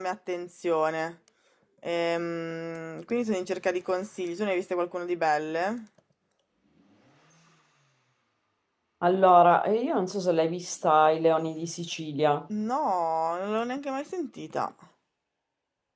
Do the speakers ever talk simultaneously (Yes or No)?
No